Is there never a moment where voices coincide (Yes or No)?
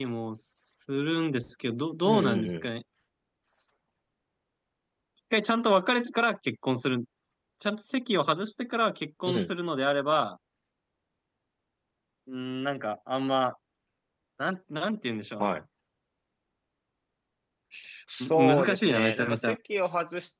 No